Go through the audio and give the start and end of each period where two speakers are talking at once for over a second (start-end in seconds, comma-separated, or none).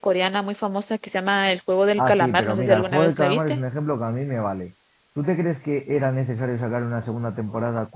2.0-3.6